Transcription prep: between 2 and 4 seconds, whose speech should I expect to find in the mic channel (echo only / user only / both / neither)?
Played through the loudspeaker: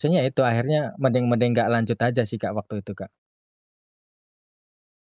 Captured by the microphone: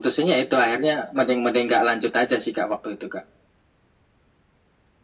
echo only